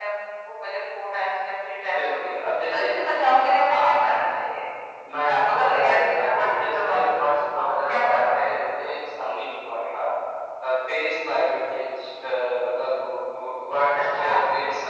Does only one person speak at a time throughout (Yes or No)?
No